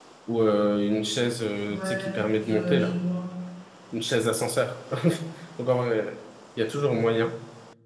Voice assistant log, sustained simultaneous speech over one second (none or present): present